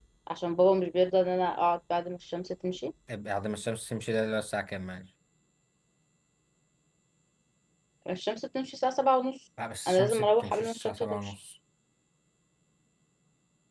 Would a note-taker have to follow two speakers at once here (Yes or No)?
Yes